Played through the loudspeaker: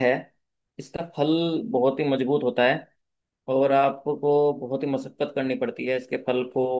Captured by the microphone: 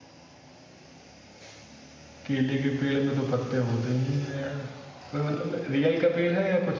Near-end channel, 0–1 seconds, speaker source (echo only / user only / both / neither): neither